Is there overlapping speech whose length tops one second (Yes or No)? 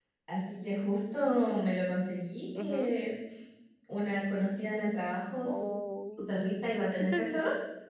No